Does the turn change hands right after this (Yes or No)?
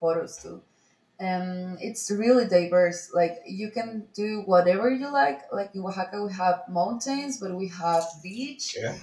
No